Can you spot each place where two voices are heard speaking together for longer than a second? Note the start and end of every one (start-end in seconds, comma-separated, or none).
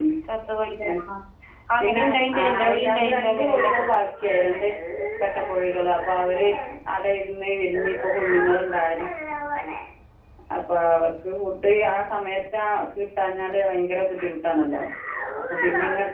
1.8-3.7